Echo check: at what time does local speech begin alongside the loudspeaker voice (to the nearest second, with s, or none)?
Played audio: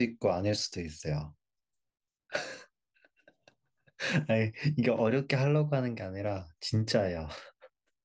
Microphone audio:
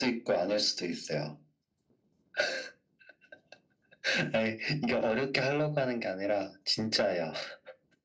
none